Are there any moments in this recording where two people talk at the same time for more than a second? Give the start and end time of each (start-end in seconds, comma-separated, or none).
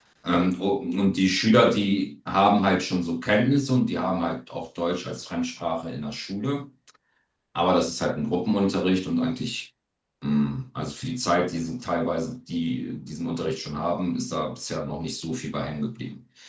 none